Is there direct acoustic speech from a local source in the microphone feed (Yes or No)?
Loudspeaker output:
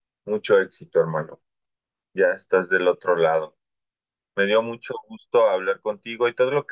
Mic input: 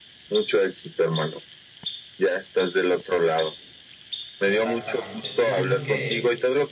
Yes